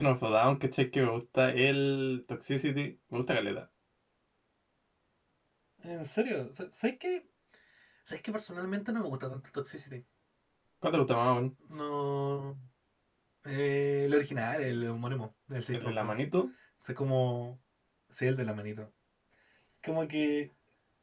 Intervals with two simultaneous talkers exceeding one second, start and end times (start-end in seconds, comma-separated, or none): none